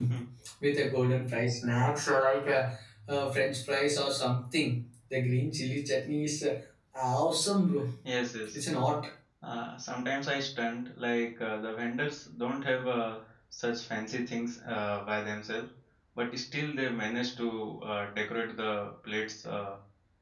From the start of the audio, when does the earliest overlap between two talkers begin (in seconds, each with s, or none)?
none